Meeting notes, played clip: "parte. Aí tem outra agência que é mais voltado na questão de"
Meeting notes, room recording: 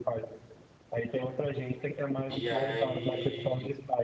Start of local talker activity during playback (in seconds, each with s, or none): 2.3 s